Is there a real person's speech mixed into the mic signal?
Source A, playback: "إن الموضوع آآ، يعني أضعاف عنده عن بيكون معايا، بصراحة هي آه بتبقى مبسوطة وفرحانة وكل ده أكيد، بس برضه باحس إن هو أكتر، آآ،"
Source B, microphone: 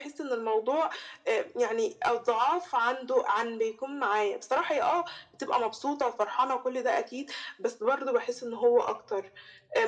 No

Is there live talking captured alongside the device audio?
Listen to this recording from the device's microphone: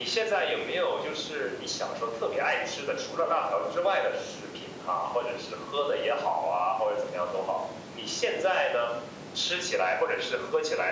No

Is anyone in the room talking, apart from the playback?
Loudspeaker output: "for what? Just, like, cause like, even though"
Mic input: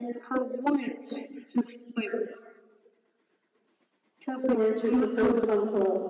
Yes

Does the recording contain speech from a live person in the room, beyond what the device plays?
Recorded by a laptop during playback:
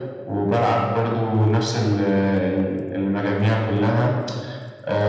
No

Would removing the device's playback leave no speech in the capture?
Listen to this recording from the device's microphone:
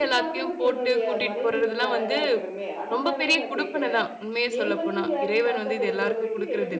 No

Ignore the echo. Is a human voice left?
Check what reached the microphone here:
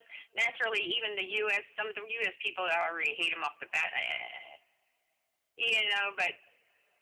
No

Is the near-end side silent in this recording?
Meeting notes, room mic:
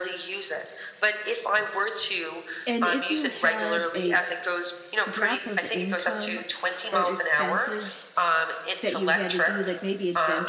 No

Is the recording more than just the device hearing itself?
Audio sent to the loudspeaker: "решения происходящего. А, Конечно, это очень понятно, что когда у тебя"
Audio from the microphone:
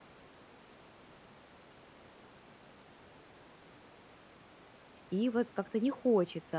Yes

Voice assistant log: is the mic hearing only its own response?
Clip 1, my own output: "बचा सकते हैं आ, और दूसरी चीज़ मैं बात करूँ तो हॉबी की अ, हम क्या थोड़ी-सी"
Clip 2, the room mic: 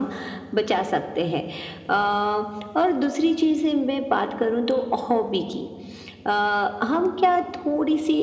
Yes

